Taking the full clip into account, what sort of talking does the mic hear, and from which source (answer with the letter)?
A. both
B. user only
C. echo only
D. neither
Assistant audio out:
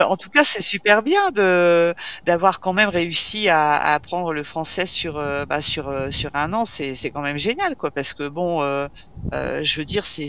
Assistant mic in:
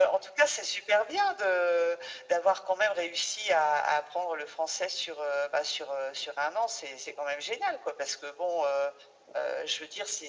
C